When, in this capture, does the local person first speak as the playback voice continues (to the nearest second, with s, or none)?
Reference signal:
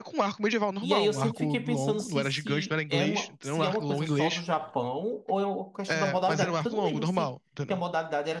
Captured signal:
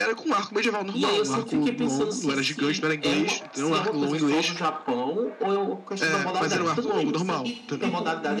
6 s